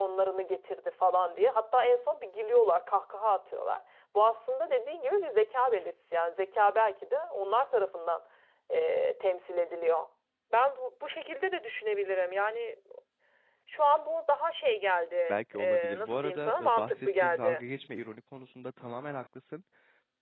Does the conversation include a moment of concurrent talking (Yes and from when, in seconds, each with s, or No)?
Yes, from 15.3 s